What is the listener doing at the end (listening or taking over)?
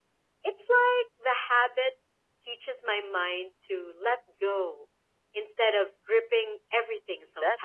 taking over